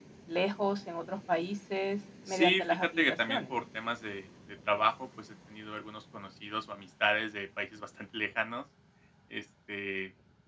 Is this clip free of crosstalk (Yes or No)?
No